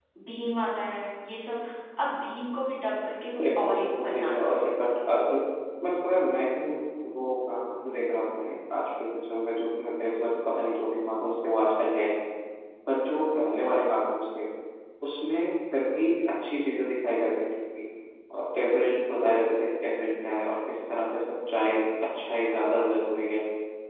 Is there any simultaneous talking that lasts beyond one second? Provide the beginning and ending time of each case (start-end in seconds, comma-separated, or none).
3.4-4.7